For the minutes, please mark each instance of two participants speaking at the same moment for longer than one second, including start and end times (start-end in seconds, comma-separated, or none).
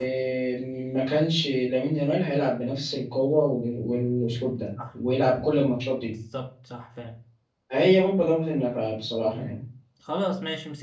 none